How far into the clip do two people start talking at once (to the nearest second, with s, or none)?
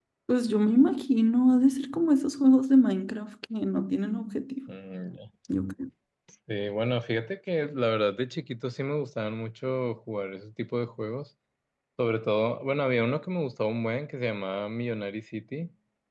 none